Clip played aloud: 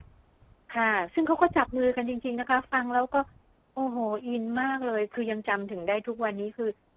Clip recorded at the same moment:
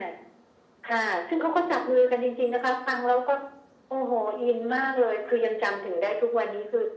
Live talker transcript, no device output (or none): none